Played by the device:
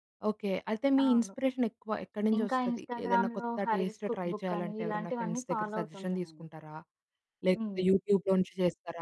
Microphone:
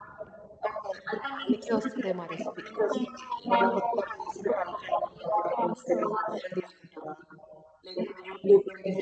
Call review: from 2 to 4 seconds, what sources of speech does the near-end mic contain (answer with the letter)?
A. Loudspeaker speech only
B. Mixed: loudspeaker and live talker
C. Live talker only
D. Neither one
B